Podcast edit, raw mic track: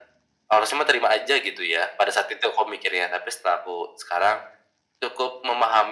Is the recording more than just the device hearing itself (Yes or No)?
No